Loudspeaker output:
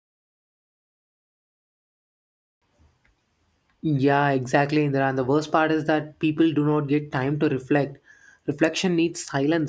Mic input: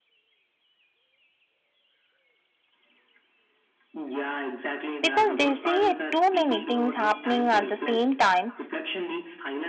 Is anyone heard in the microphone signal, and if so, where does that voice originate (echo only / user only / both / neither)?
both